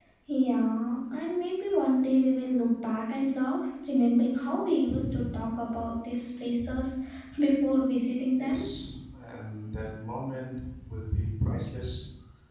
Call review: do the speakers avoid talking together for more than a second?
Yes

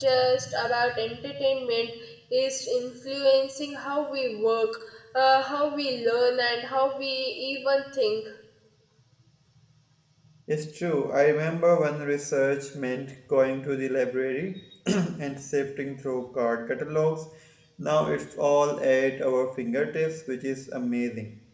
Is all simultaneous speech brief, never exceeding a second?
Yes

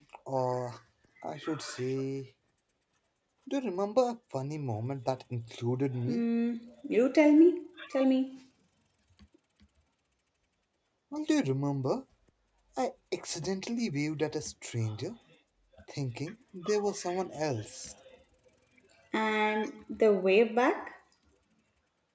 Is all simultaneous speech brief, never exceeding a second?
Yes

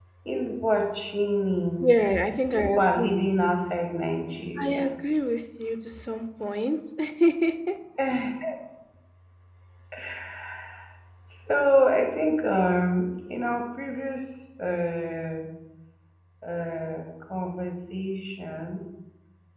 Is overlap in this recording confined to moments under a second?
Yes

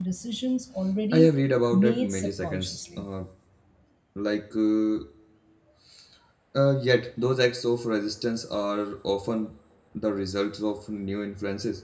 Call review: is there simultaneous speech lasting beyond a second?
Yes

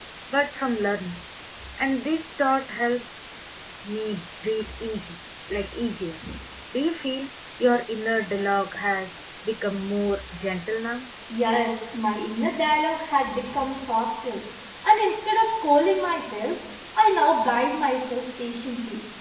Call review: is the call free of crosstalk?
Yes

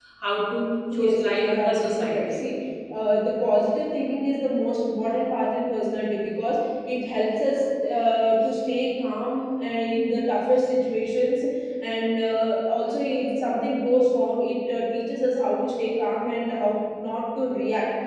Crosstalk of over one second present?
Yes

